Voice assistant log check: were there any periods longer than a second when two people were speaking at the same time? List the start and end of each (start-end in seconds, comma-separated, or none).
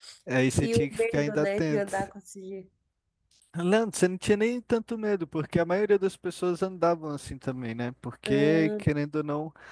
0.6-1.9